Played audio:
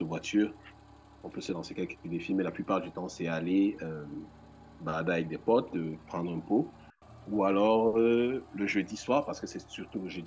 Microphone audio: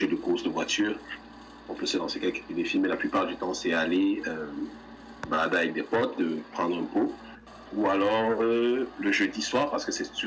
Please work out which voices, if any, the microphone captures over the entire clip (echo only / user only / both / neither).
echo only